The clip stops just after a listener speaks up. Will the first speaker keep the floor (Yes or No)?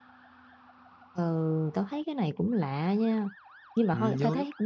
Yes